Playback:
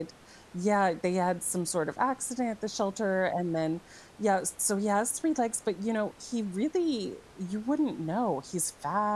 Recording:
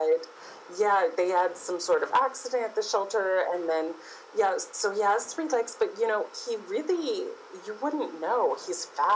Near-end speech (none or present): none